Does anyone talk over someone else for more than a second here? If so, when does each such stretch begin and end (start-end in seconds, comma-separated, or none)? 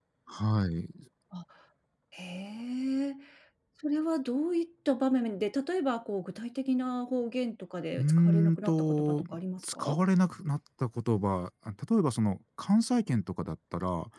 8.0-9.2